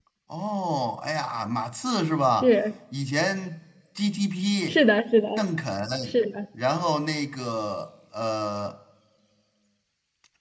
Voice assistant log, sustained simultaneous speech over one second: none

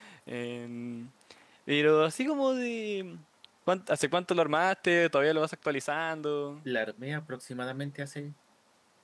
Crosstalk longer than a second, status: none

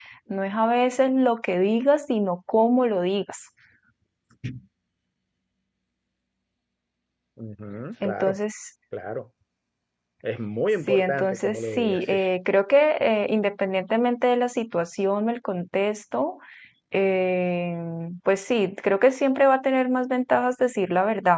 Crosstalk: present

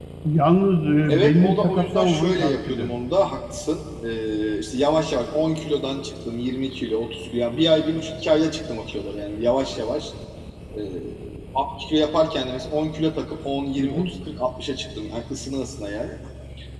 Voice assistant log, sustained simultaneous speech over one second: present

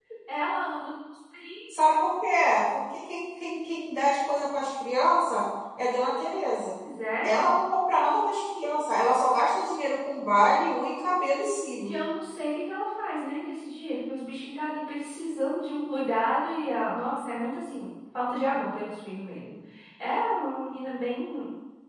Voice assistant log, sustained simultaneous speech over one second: none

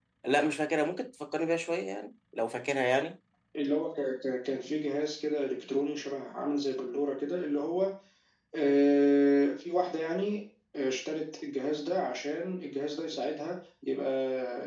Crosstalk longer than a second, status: none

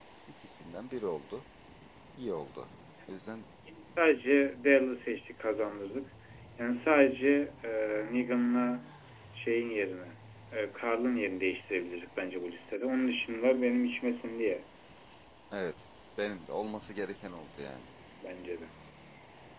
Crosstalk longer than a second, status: none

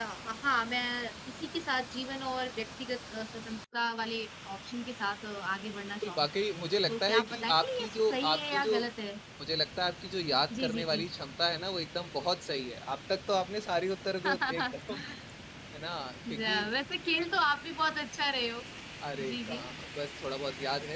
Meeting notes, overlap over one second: present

